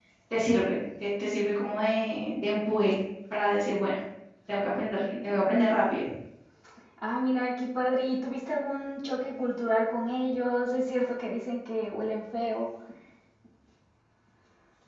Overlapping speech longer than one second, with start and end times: none

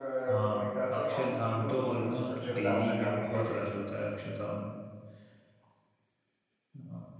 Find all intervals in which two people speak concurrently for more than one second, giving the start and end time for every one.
0.5-3.6

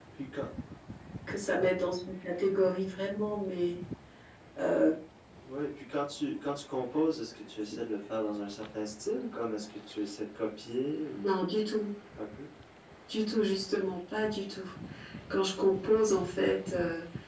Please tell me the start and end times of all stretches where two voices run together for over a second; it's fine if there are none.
none

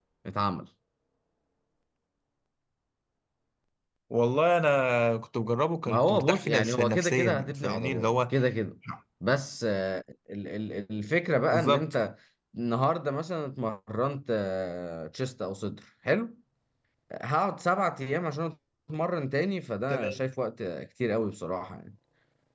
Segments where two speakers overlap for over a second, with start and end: 5.9-8.1

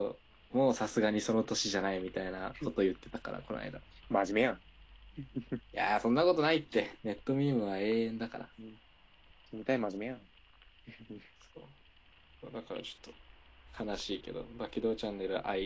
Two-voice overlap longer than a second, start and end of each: none

